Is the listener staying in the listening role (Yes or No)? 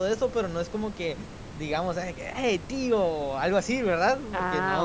No